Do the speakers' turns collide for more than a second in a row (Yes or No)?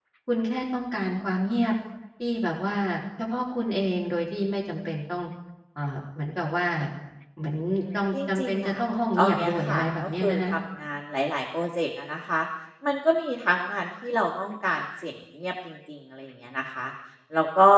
Yes